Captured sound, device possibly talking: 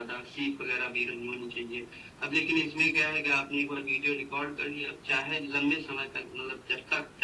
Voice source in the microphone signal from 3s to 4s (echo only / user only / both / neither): echo only